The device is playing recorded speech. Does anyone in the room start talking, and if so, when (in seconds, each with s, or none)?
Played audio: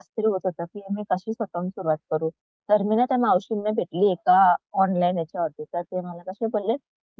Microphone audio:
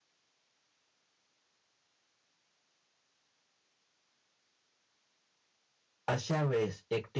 6.1 s